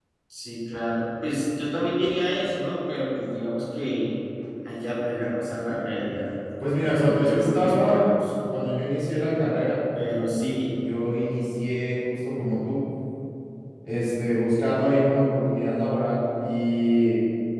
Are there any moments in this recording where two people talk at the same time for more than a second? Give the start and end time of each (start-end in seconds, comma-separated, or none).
6.7-8.0